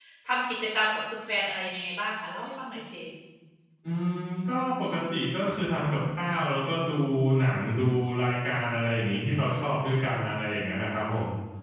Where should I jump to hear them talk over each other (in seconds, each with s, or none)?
none